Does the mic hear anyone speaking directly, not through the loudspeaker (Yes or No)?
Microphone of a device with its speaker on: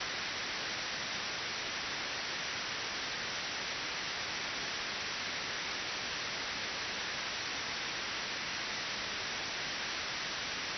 No